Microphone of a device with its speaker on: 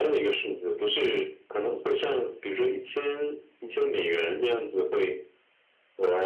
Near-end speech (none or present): none